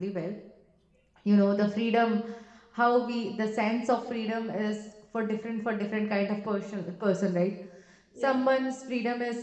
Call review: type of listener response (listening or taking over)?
listening